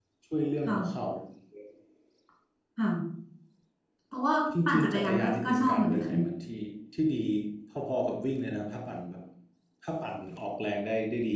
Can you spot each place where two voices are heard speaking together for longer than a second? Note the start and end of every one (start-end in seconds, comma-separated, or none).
4.6-6.1